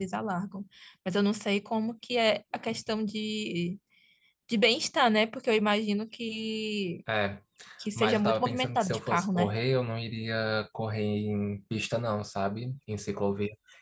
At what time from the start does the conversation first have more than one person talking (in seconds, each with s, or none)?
8.0 s